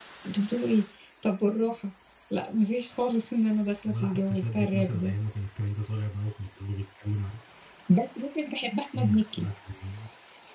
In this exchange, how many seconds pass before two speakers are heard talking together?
3.9 s

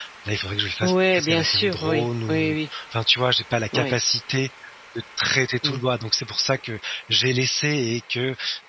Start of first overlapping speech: 0.8 s

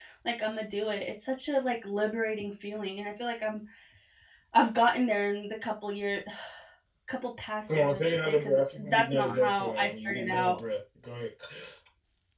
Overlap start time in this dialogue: 7.7 s

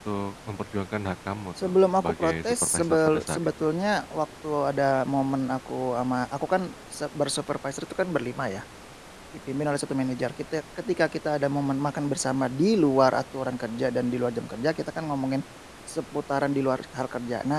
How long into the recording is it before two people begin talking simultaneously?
1.6 s

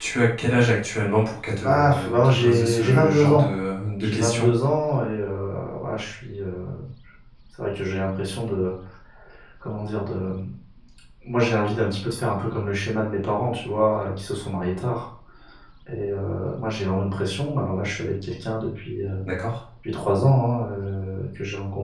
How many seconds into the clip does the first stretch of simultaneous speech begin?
1.6 s

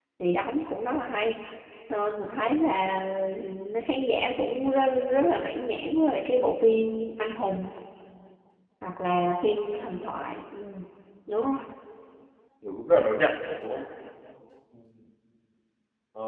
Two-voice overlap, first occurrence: none

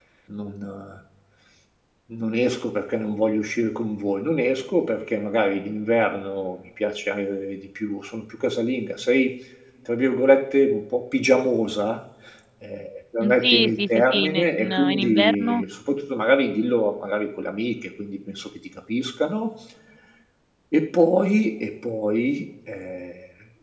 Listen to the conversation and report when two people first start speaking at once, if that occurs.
13.2 s

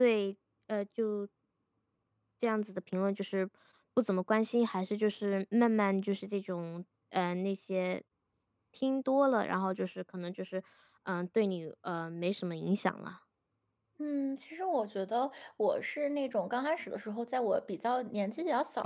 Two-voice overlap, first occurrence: none

